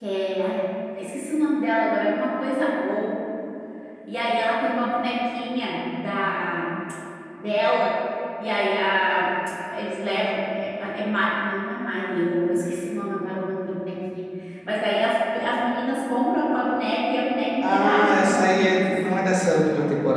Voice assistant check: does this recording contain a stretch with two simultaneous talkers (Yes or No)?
Yes